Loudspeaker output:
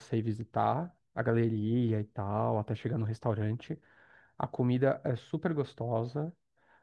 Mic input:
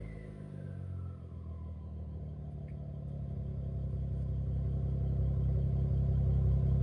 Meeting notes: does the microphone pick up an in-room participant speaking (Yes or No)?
No